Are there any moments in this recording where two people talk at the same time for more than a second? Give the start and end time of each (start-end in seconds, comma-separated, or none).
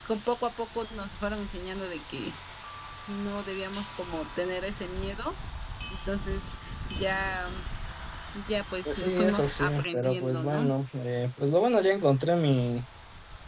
8.8-10.7